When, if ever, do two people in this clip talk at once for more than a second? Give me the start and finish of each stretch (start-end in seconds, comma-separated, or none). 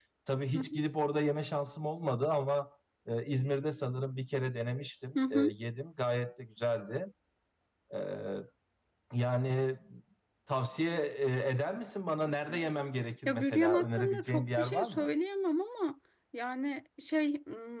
13.2-15.1